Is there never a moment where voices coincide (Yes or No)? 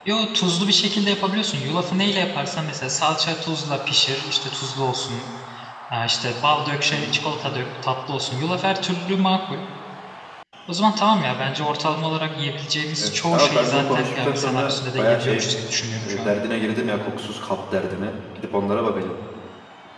No